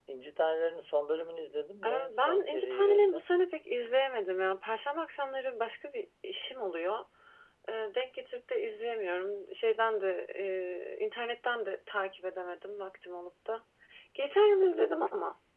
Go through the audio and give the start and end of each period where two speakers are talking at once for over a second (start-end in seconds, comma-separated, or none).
1.9-3.2